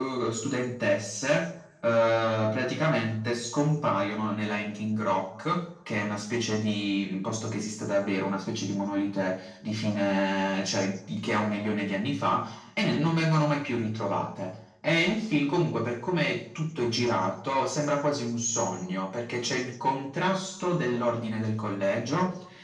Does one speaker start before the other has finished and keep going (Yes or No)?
No